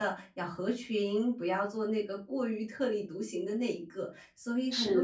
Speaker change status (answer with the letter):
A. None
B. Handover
B